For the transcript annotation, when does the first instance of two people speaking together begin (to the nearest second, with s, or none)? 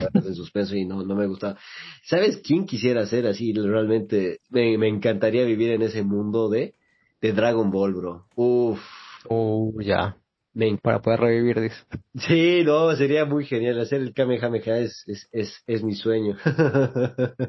none